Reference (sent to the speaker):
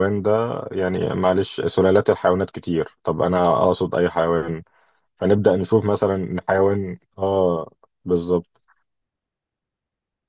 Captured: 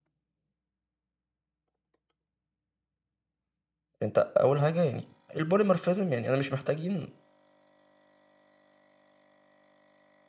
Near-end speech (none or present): present